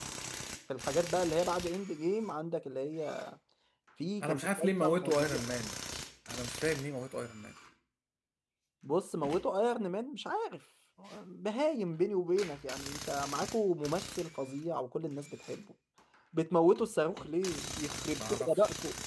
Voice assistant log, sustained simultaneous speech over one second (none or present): present